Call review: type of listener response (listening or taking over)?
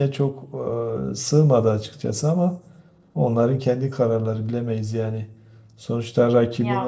listening